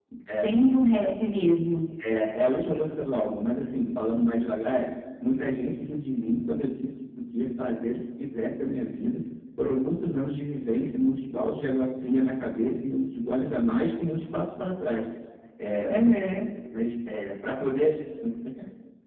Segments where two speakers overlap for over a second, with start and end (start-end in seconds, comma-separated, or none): none